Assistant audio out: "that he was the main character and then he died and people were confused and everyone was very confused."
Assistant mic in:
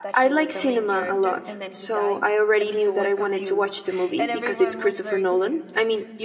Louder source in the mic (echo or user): user